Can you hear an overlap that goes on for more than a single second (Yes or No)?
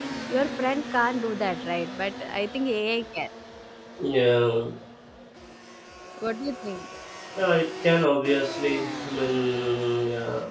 No